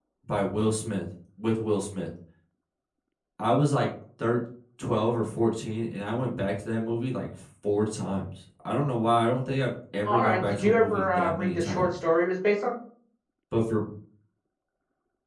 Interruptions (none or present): present